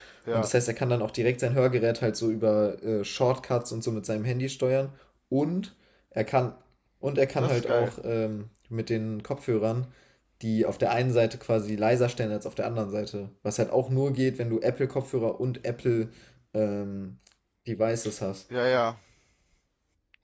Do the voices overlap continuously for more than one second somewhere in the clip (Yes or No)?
No